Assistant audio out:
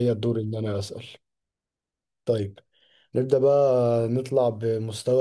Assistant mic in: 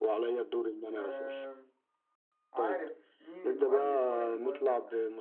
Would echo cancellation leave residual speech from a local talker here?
Yes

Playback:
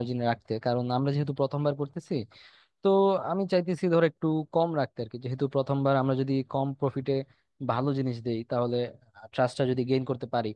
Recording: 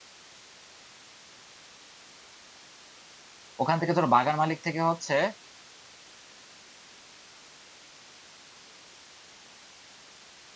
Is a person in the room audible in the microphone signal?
Yes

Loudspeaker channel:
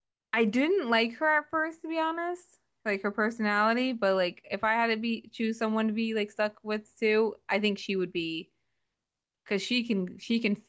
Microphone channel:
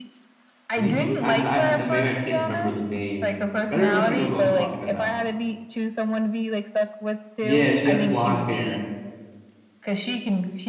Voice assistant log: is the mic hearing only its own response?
No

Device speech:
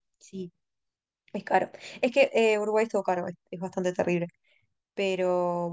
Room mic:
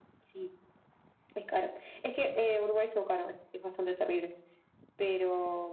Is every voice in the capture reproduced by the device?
Yes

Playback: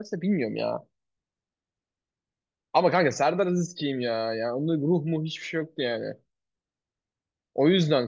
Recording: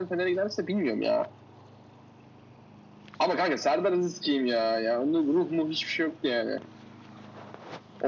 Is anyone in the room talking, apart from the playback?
No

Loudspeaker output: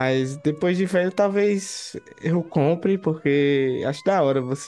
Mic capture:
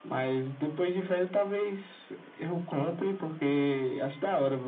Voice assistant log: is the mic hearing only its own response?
Yes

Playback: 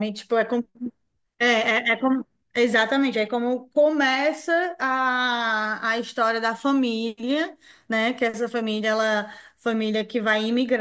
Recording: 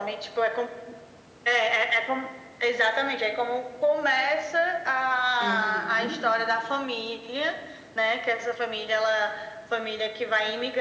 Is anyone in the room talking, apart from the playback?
Yes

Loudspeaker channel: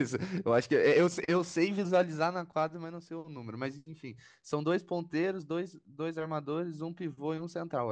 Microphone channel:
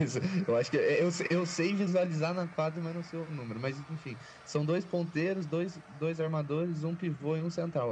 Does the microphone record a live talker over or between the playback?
No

